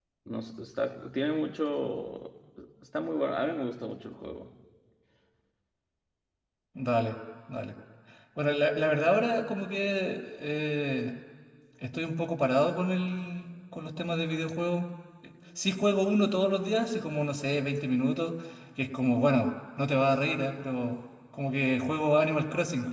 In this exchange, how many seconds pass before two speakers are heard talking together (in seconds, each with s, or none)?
none